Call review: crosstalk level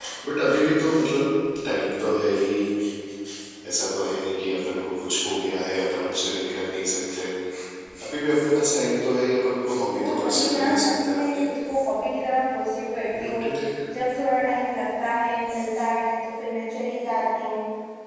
present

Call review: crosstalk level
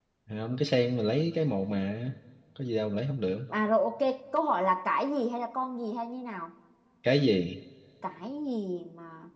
none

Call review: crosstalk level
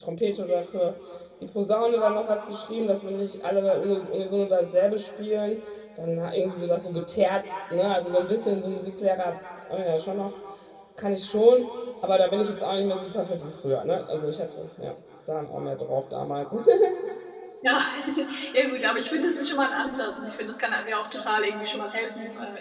none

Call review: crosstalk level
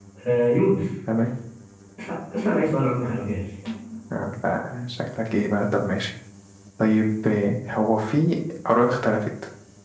none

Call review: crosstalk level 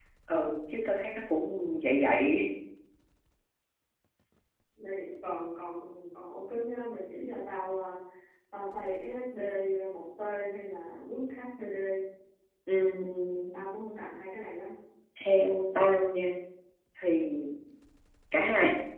none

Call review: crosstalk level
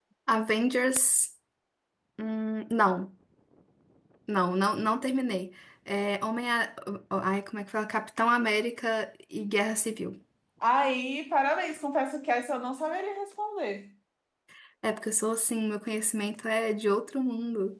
none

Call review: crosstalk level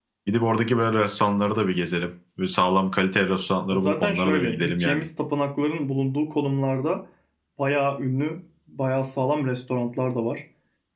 present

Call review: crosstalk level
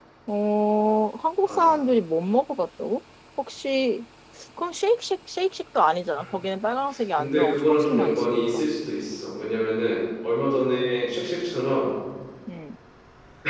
present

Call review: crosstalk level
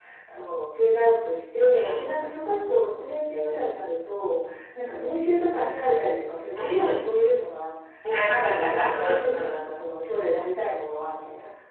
present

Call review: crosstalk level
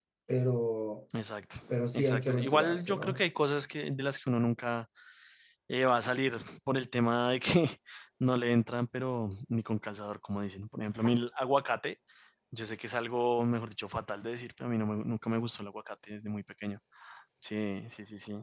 present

